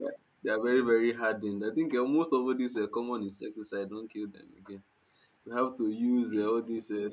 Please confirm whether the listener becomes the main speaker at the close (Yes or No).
No